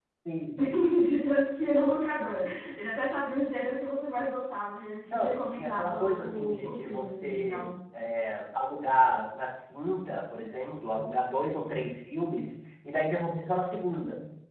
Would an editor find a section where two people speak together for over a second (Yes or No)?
Yes